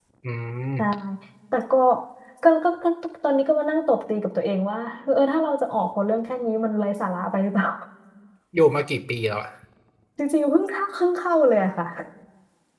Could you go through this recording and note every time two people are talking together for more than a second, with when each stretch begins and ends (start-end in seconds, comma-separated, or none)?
none